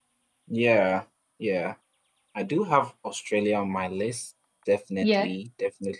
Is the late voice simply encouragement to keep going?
Yes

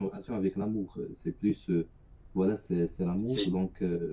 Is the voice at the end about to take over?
No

